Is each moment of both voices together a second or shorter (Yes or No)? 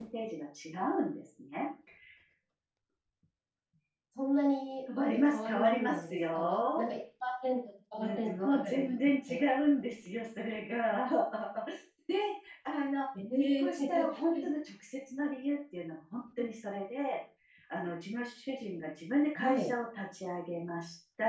No